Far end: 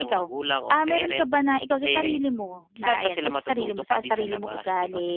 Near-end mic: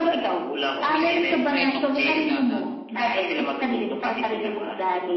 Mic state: both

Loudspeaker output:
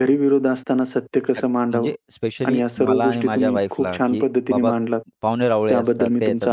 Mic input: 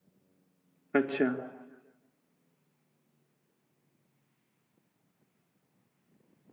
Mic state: user only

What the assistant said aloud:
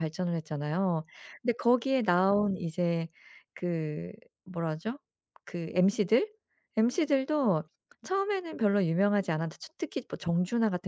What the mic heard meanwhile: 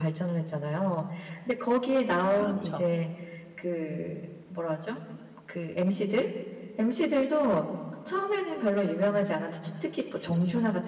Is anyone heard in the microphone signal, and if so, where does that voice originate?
both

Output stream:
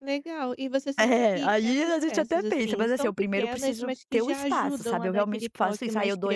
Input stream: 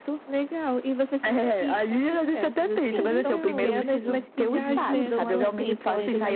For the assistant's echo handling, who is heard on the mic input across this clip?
both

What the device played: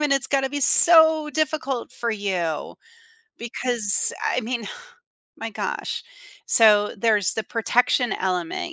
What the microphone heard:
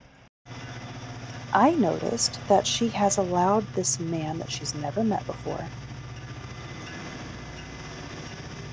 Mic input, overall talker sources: user only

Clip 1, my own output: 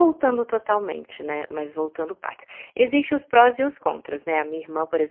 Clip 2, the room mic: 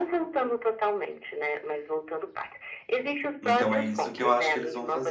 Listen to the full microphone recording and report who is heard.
both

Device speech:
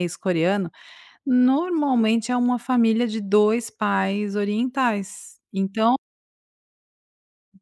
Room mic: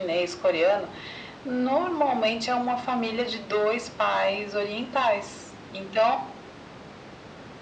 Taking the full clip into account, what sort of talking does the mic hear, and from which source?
echo only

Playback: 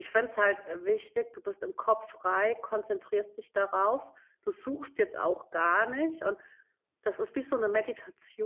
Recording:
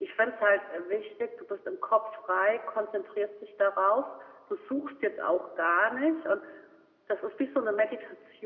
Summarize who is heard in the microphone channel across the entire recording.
echo only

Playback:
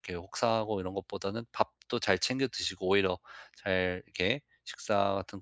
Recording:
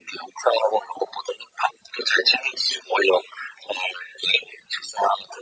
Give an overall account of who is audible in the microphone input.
echo only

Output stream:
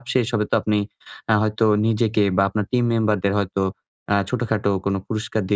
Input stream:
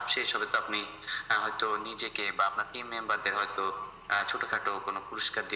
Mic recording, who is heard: echo only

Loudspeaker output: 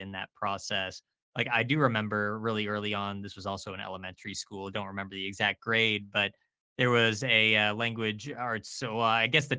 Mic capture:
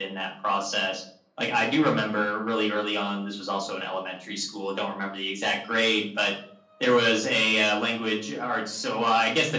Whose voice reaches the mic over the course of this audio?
echo only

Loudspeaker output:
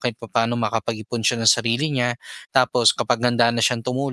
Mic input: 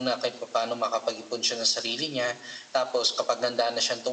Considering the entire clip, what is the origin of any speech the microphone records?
echo only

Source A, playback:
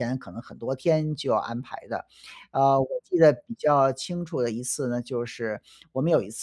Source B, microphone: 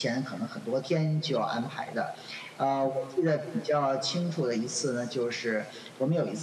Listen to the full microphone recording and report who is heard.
echo only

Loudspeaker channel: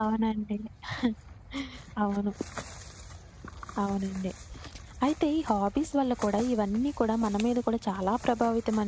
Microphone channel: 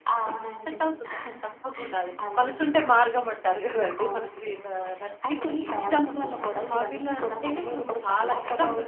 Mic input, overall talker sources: both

